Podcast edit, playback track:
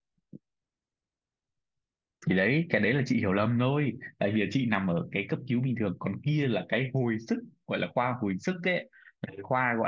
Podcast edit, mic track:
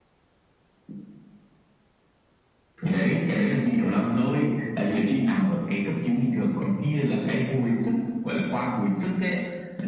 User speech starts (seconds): none

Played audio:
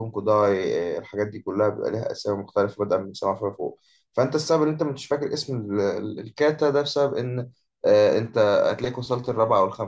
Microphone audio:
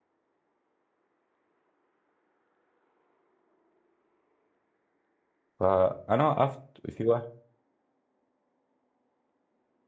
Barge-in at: 6 s

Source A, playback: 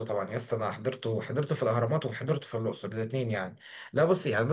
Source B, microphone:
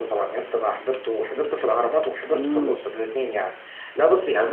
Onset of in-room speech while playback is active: 2 s

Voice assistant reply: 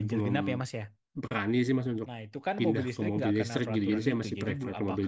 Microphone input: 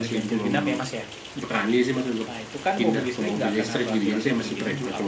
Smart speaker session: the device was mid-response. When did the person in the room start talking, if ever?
none

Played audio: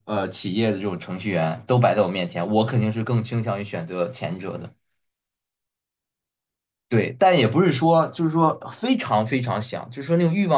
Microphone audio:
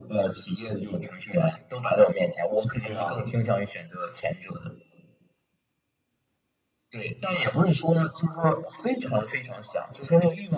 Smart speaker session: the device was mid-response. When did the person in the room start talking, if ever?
3 s

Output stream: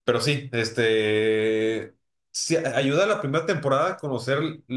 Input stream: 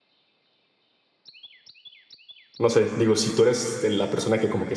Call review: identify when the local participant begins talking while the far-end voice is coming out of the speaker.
3 s

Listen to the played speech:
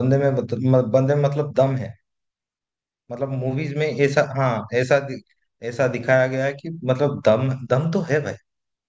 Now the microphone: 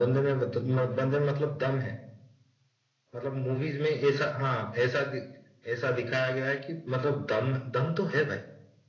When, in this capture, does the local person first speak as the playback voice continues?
none

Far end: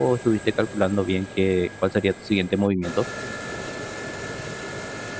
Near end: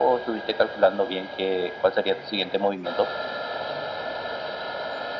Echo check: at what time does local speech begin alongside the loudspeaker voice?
none

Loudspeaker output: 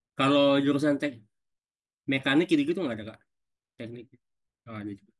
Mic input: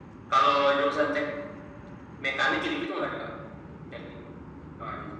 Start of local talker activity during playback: none

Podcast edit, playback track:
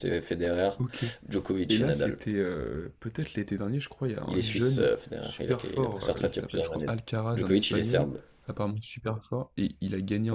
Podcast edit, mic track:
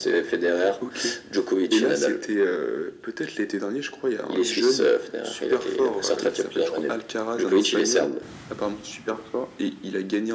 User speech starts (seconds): none

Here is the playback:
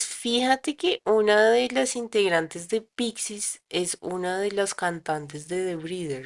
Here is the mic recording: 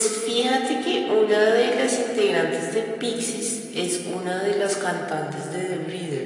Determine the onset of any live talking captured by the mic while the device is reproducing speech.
none

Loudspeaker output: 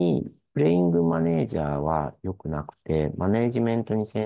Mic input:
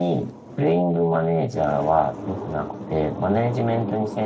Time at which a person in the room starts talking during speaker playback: none

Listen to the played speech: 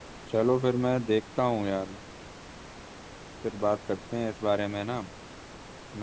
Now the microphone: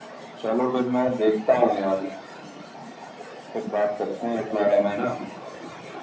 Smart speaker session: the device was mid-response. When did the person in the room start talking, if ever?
none

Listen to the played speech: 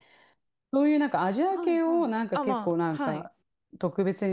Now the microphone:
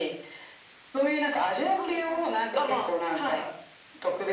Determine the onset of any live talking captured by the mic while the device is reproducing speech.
none

